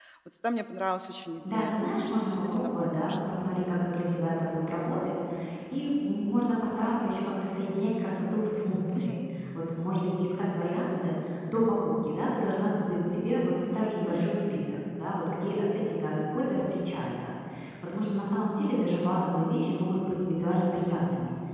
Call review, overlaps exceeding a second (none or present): present